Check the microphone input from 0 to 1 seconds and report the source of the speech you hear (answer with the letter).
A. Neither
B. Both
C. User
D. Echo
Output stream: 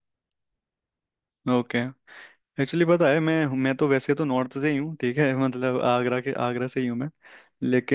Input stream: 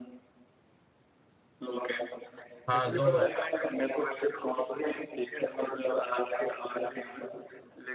A